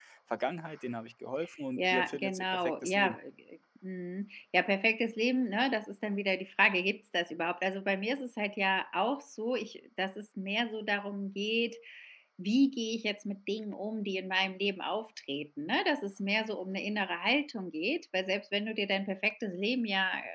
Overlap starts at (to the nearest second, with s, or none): 2 s